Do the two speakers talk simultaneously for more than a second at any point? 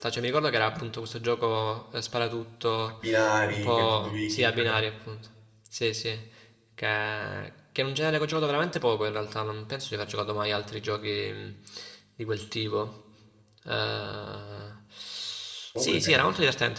Yes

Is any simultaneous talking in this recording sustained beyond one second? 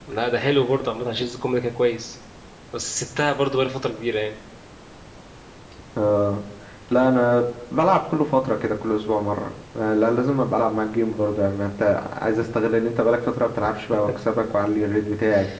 No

